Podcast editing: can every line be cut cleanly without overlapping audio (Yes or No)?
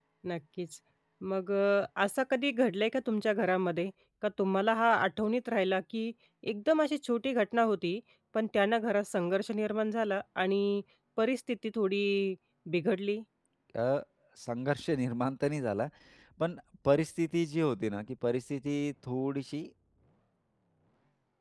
Yes